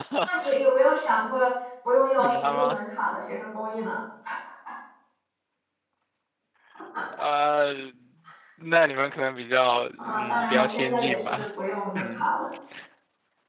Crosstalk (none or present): present